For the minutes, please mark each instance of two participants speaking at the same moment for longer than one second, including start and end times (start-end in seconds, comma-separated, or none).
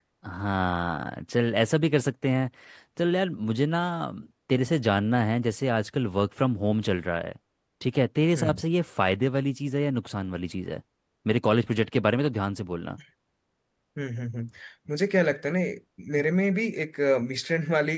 none